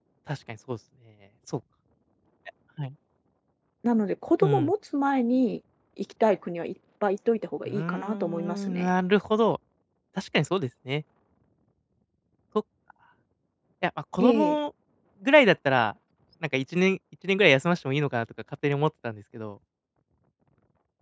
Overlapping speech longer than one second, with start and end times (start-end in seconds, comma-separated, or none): 7.6-8.9